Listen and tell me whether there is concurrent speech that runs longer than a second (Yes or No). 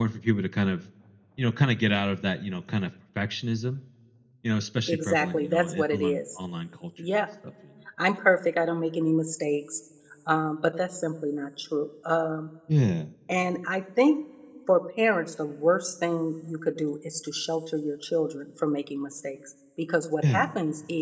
Yes